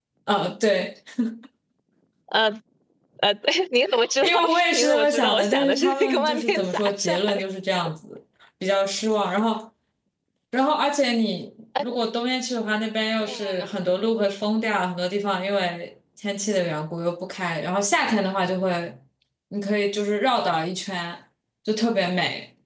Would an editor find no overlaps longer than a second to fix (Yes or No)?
No